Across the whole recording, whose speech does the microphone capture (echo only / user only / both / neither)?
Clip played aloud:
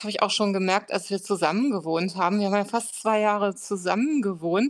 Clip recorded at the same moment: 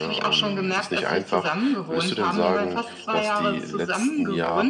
both